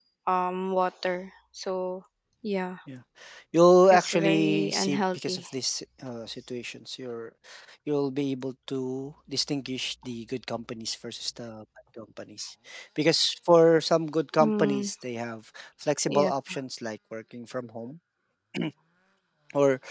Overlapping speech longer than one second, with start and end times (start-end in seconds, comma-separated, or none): 3.9-5.4